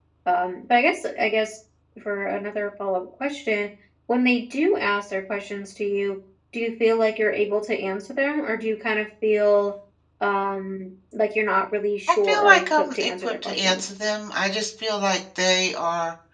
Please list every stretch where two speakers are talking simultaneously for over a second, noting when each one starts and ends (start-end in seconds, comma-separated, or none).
12.1-13.9